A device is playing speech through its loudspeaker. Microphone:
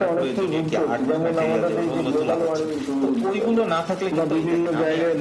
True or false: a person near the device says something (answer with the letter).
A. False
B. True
A